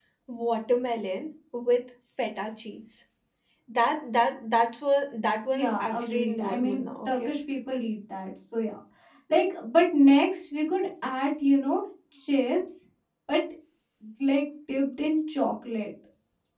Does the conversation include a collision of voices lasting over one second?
Yes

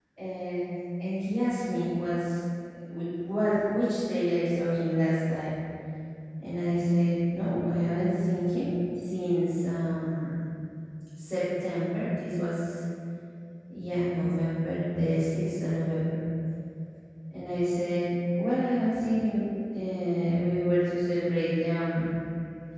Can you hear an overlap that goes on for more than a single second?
No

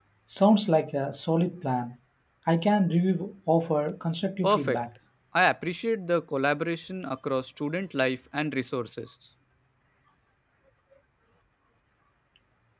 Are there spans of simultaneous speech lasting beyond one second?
No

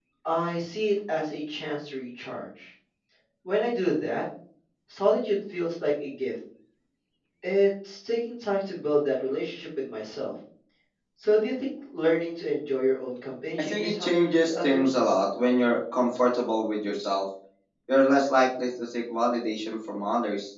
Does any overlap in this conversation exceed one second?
Yes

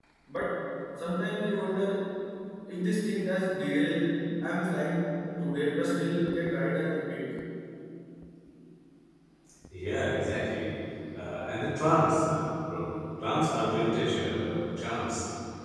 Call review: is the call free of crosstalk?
Yes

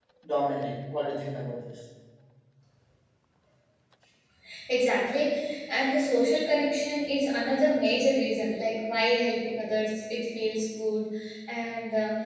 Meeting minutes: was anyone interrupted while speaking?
No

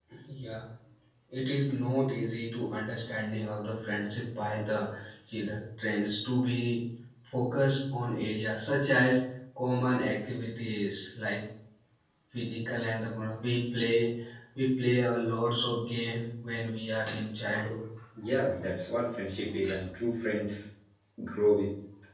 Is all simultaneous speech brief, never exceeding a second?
Yes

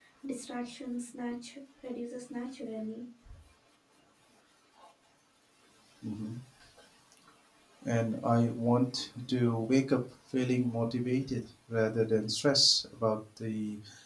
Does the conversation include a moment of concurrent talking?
No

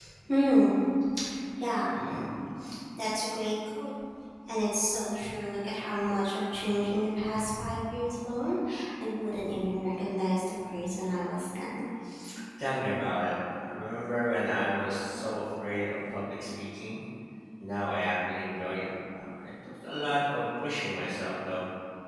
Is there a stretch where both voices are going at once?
No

